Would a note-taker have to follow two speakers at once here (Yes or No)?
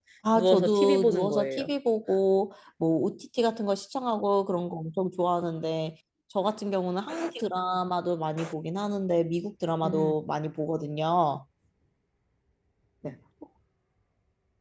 Yes